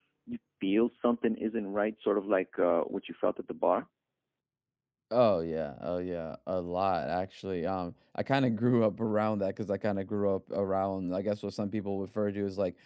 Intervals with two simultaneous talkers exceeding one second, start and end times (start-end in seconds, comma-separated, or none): none